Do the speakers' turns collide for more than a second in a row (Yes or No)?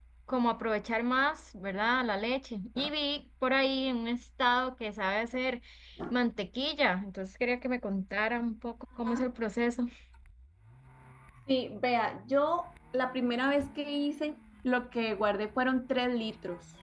No